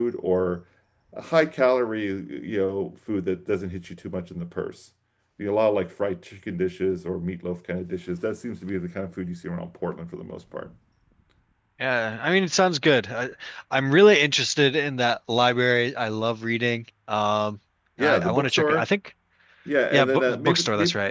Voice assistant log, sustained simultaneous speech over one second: present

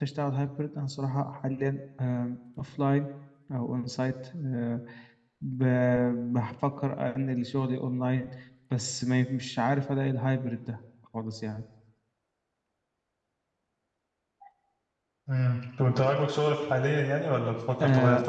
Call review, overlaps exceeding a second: none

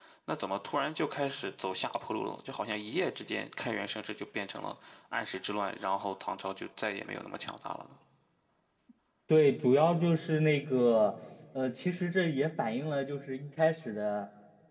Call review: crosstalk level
none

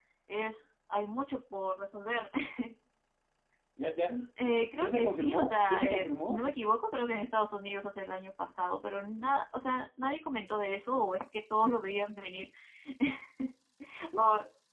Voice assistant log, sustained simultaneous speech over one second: present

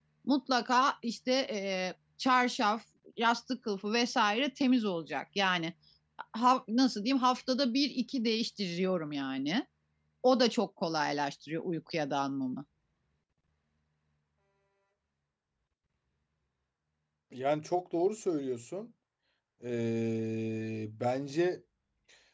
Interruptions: none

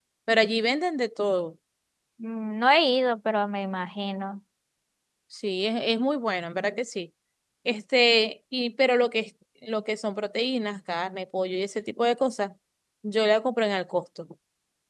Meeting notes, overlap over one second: none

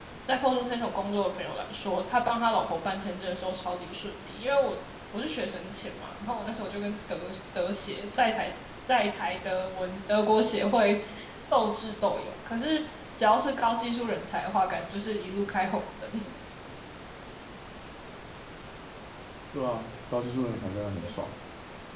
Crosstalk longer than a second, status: none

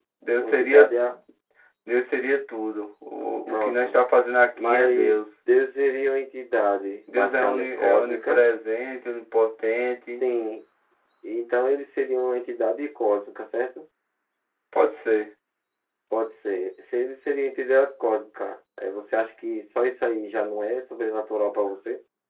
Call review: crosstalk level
present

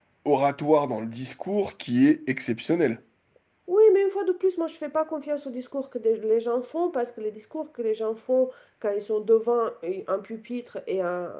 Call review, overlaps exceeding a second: none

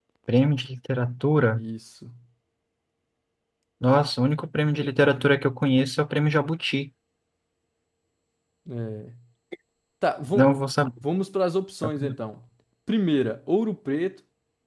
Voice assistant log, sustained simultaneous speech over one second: none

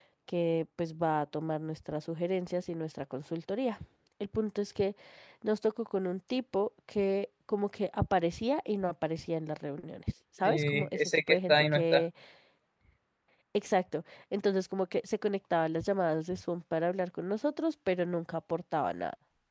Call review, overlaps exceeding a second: present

